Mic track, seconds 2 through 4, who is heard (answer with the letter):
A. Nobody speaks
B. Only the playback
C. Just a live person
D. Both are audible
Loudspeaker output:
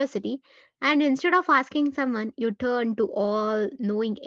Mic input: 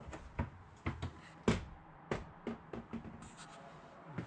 A